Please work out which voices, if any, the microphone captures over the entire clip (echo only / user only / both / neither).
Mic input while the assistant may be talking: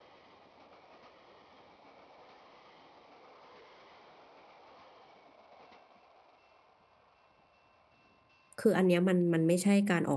user only